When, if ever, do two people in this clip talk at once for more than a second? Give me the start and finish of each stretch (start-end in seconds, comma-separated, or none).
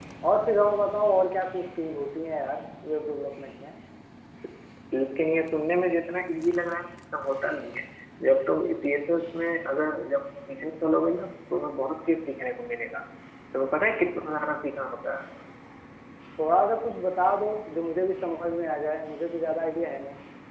none